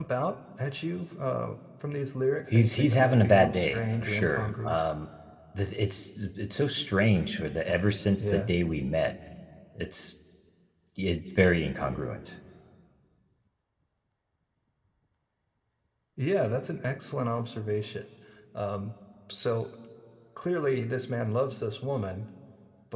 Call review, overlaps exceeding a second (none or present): present